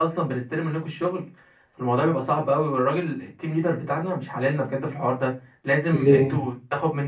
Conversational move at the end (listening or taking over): listening